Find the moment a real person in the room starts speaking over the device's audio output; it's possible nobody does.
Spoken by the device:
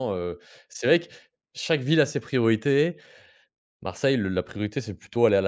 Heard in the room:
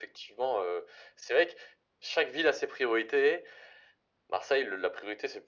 none

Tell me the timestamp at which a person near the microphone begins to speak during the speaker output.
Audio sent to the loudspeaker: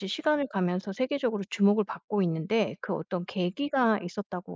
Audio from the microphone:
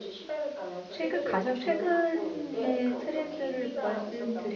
0.9 s

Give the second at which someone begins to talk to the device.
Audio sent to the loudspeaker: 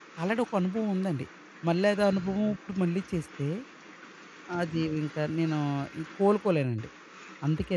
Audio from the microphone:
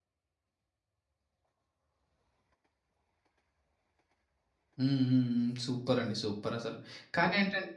4.8 s

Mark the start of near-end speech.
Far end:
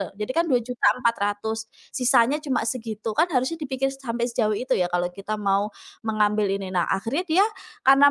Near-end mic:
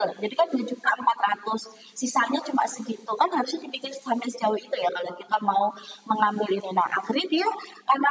none

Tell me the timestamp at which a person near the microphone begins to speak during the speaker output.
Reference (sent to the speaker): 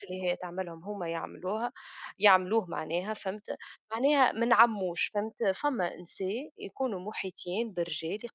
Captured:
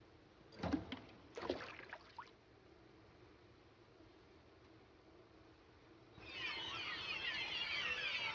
none

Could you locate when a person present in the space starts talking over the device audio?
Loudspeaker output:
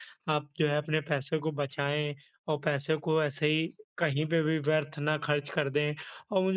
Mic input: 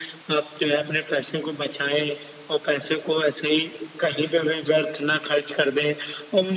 none

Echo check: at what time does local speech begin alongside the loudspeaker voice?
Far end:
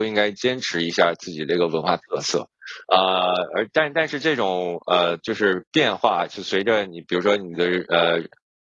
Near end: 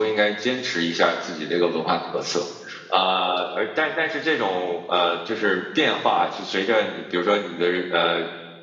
none

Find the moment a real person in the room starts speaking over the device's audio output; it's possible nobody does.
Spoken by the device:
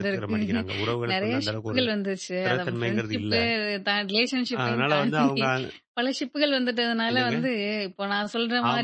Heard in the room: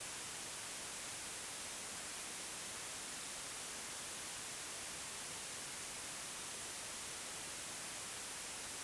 none

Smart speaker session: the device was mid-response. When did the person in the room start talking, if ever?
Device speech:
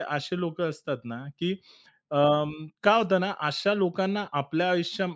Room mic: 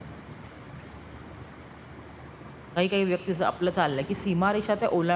2.8 s

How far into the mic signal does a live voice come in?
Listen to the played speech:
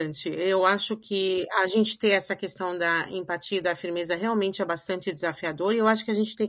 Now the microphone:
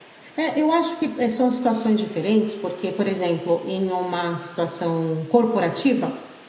0.4 s

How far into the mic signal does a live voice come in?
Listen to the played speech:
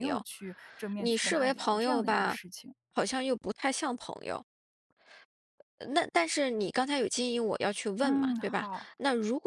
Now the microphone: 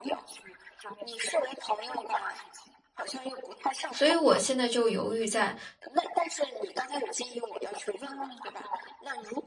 3.9 s

